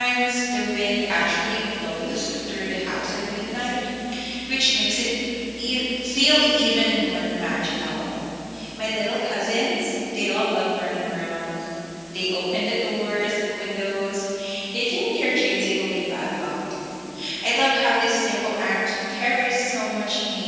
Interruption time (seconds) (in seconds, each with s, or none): none